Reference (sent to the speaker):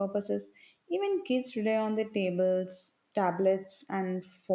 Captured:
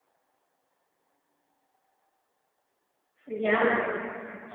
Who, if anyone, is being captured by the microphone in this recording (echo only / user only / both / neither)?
user only